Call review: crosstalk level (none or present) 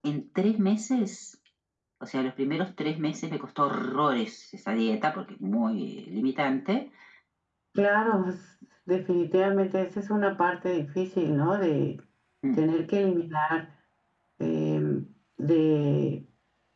none